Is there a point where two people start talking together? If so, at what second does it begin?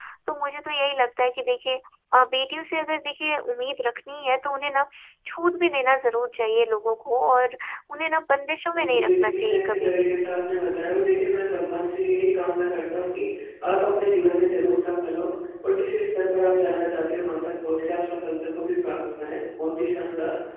8.7 s

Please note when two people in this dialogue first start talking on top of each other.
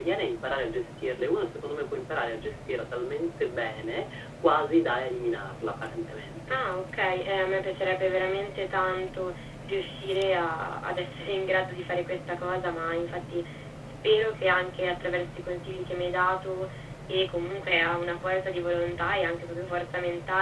none

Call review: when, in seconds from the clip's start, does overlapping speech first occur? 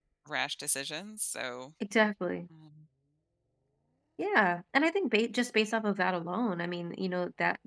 none

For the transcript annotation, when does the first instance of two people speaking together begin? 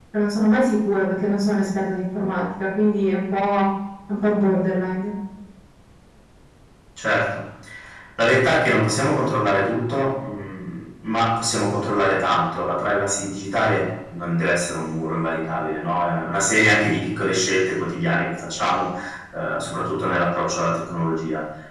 none

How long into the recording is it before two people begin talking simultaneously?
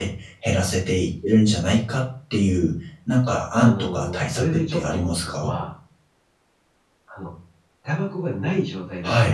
3.6 s

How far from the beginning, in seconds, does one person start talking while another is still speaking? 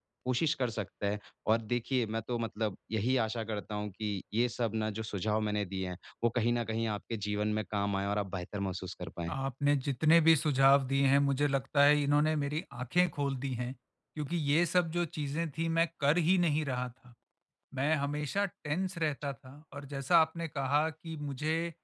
none

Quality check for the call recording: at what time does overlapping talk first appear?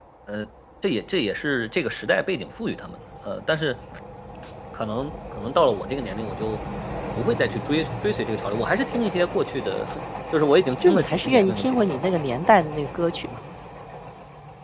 10.8 s

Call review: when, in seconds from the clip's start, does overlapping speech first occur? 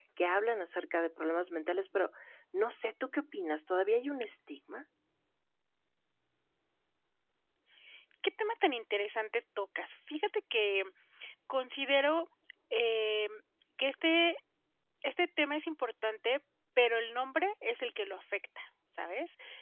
none

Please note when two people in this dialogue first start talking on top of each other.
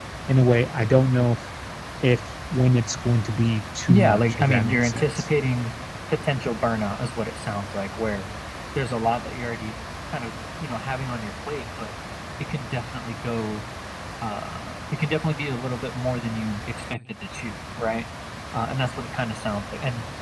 3.9 s

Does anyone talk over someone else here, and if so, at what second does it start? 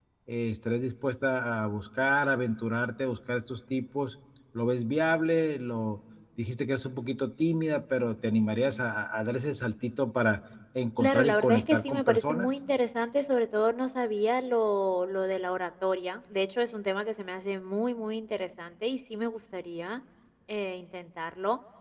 11.0 s

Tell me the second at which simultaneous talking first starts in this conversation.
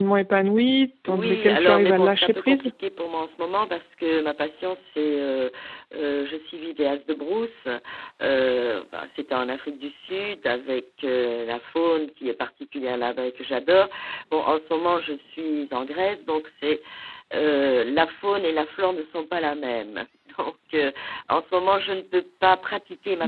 1.1 s

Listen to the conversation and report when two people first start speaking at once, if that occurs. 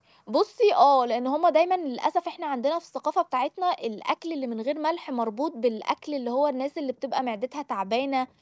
none

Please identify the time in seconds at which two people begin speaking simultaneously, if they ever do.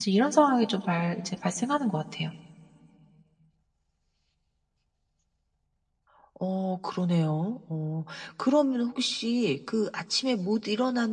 none

